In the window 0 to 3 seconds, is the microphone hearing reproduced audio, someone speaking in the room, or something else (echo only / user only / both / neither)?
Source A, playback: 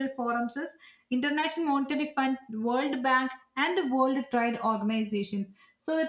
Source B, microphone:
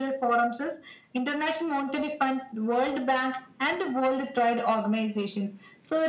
echo only